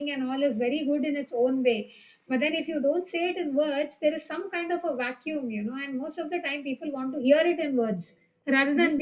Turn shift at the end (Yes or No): Yes